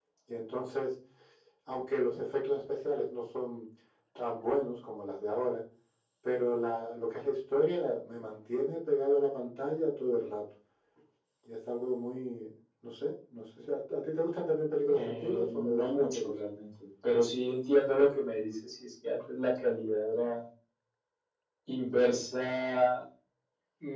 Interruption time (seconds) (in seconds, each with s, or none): 14.9 s